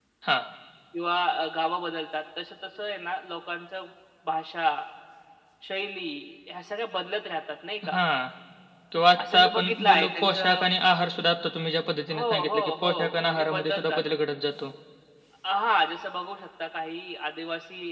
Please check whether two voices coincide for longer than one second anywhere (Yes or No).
Yes